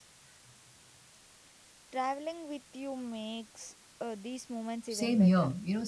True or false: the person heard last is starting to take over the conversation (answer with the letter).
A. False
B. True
B